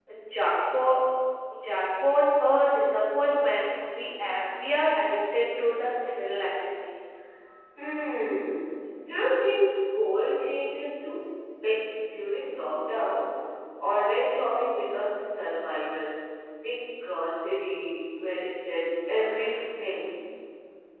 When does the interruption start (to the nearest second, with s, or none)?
none